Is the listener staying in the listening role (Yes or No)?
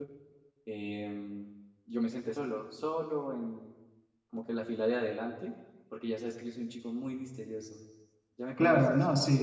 No